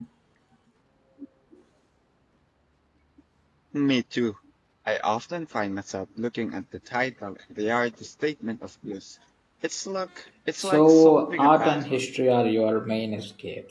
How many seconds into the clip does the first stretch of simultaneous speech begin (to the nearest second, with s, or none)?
11 s